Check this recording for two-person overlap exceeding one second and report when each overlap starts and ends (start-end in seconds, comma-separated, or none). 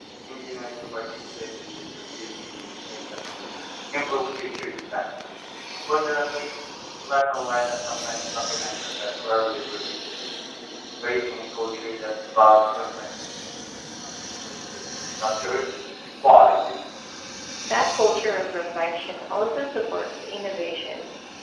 none